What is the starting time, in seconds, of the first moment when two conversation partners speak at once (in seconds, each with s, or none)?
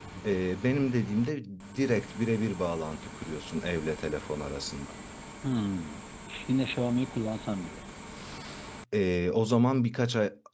none